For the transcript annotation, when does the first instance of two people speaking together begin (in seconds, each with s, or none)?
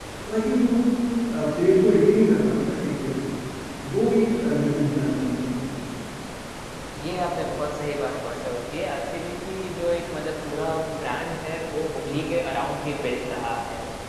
none